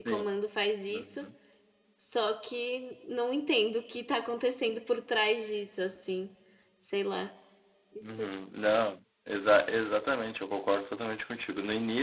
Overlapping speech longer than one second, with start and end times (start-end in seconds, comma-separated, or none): none